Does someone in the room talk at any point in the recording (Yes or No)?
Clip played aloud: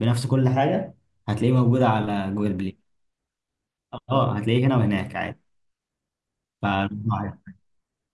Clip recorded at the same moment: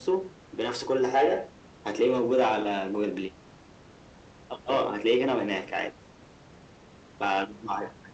No